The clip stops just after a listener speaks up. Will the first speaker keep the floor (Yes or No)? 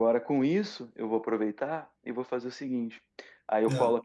Yes